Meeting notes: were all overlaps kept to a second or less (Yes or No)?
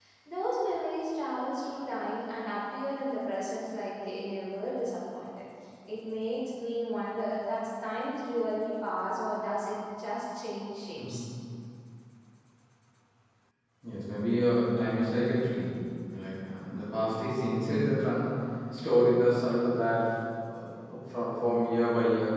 Yes